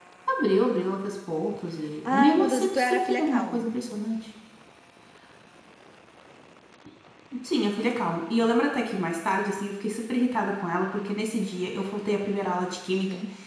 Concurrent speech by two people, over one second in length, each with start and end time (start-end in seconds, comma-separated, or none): 2.1-3.6